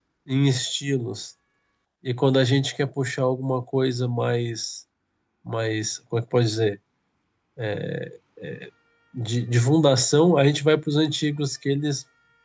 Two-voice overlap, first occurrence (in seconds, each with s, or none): none